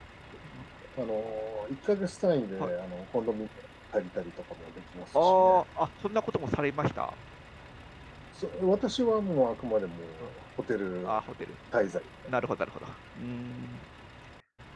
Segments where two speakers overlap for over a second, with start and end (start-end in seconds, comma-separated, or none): none